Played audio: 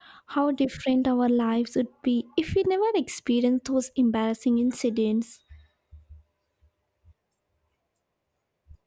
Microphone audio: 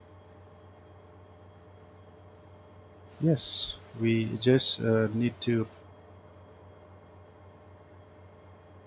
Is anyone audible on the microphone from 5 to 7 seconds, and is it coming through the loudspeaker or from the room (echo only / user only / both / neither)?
user only